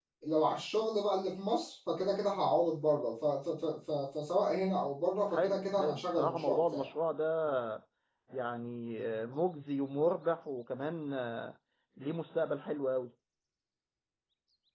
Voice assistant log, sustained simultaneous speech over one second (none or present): present